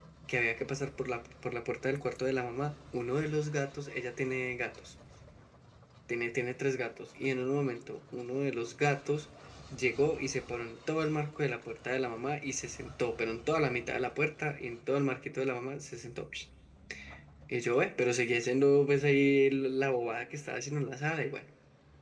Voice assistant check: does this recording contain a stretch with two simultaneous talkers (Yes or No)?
No